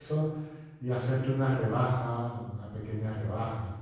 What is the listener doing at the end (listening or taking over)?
taking over